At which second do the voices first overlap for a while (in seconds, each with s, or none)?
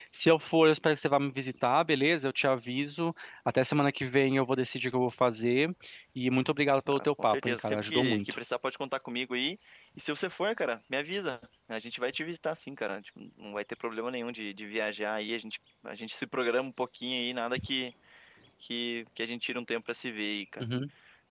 6.9 s